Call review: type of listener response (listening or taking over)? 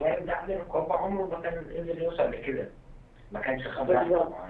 taking over